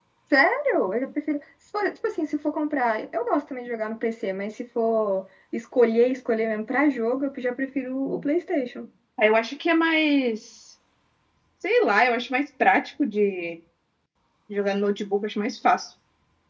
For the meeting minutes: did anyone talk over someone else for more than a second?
No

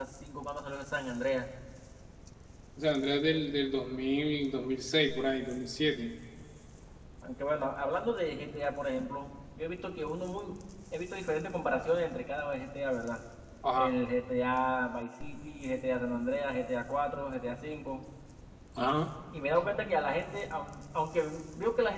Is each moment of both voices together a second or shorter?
Yes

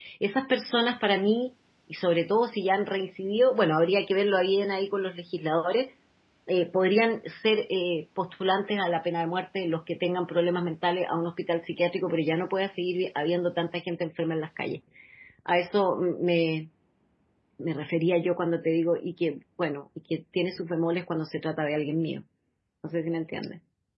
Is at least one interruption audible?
No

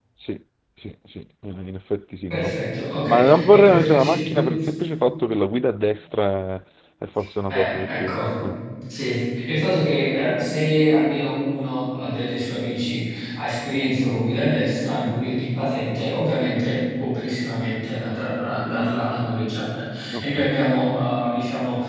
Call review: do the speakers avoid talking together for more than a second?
No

